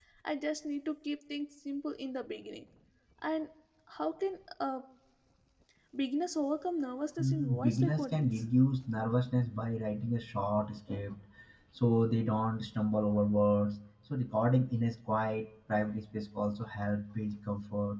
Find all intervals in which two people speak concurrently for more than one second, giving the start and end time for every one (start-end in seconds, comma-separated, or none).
7.2-8.4